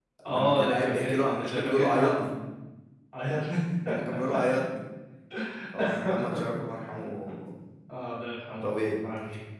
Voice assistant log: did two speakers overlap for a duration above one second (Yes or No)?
Yes